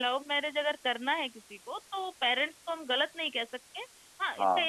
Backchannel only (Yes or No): Yes